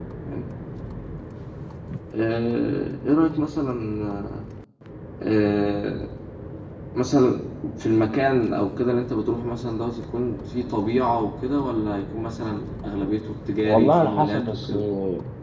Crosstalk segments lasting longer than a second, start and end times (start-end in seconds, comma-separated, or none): 13.6-14.9